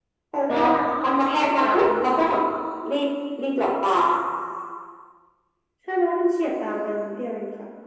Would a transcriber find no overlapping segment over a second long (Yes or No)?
No